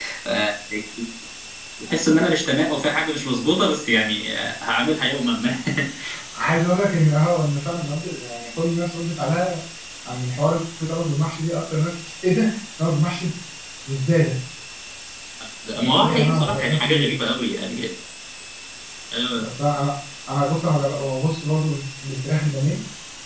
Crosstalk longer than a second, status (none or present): present